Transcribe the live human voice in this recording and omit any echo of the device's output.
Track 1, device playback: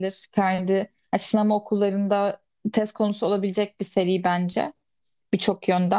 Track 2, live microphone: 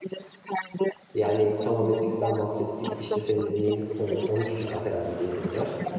yani tamam Matrix'ten bahsettik. İşte senin dediğin o 13. kat herhalde diye dediler,

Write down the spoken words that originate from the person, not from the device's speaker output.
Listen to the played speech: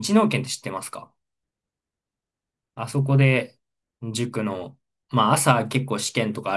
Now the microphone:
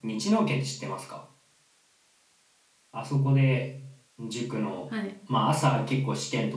はい。

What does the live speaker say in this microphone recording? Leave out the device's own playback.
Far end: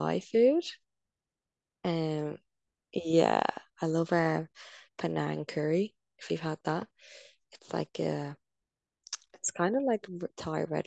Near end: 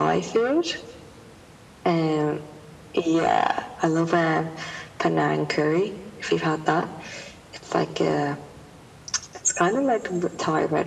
none

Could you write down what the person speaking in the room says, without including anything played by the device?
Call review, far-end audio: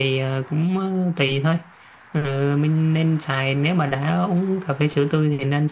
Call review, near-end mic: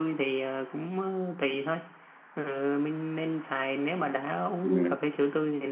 ừ.

